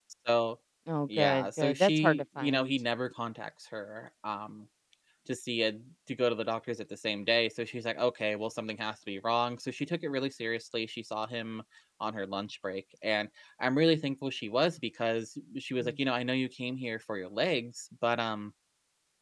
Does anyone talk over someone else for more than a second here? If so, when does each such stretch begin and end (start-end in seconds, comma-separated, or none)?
1.2-2.7